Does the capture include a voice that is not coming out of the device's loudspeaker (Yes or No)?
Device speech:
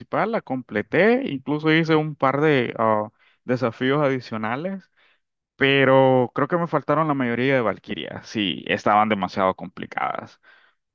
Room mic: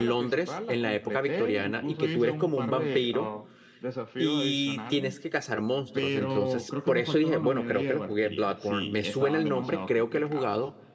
Yes